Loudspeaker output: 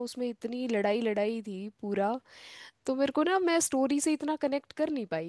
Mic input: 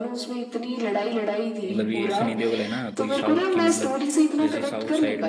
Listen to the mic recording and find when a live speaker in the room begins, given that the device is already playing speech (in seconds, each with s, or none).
1.6 s